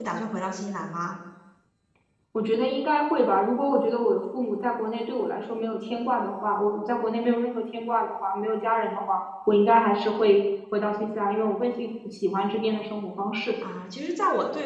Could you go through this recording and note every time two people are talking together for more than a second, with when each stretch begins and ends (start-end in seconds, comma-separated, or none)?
none